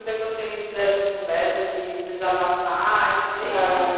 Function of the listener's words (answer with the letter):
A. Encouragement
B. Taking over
A